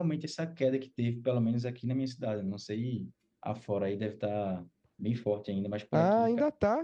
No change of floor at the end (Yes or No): No